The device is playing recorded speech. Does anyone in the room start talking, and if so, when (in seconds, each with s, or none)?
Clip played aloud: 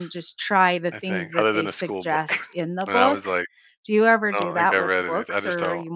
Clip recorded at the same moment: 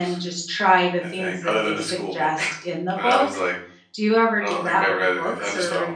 none